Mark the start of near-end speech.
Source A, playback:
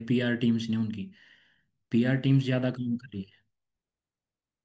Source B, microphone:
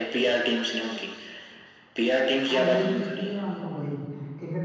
2 s

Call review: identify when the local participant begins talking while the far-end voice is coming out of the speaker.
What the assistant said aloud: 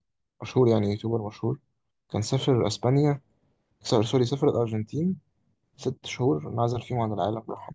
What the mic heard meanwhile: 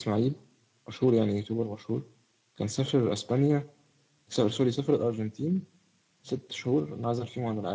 none

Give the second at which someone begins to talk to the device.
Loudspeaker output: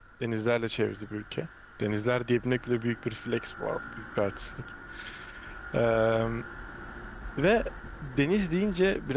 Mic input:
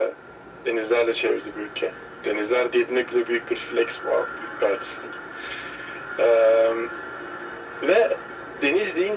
none

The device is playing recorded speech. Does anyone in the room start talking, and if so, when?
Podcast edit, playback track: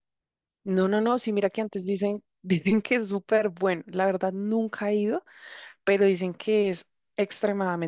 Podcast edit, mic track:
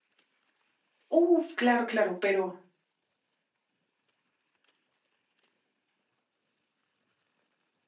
1 s

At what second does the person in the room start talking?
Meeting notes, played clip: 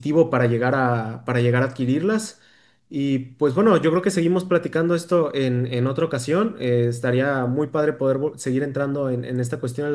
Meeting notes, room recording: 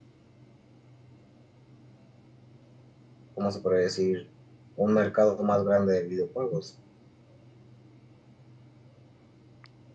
3 s

